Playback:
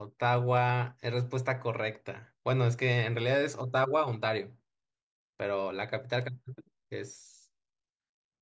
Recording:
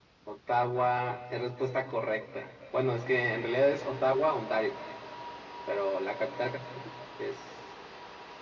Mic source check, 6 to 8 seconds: echo only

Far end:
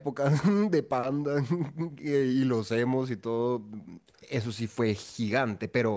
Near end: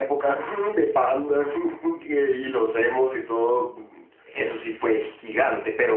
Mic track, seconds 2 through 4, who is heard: echo only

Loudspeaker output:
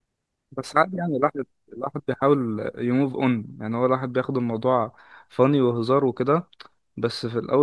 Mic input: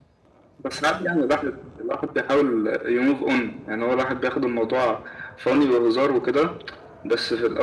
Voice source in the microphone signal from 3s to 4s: echo only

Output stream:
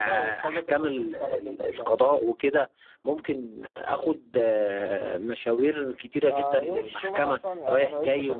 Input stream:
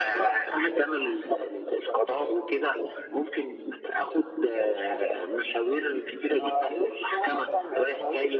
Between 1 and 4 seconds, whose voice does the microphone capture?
echo only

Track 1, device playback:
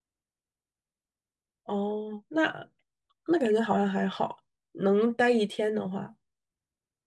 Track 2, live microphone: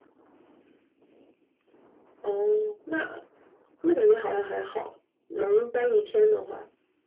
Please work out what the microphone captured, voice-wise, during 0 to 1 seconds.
neither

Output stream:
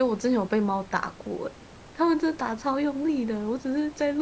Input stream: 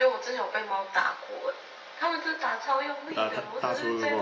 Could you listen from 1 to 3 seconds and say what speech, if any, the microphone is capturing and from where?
echo only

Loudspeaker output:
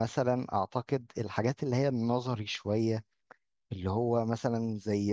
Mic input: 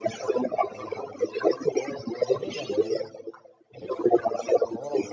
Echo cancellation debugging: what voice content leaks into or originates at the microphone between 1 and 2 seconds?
both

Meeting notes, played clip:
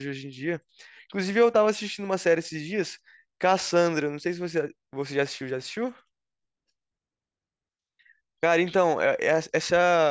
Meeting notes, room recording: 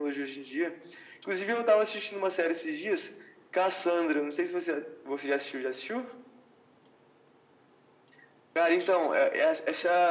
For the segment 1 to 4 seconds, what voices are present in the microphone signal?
echo only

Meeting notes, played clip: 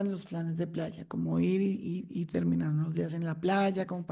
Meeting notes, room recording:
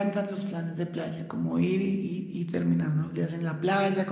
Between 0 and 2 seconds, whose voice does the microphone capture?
echo only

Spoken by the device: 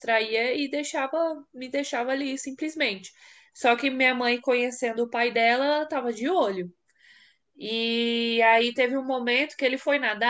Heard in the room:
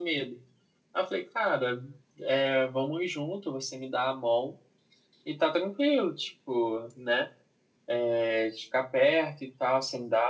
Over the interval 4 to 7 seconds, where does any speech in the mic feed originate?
user only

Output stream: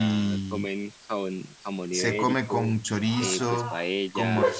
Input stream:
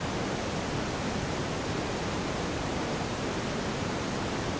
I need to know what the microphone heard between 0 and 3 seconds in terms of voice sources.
neither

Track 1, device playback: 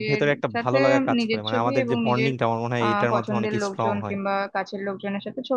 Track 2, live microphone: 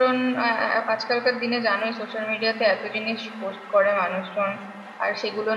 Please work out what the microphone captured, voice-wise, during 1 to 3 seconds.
user only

